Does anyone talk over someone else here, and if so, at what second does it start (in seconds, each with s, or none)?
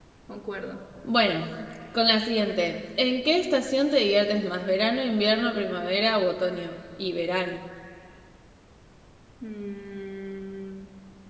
none